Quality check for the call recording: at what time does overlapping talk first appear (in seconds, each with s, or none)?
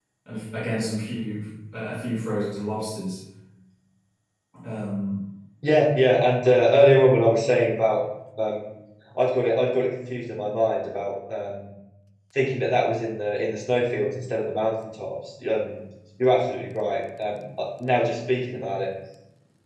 none